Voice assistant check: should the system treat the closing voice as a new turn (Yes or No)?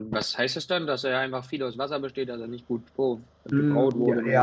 Yes